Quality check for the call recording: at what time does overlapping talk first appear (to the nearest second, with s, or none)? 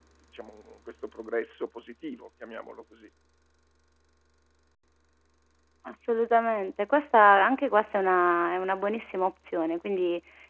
none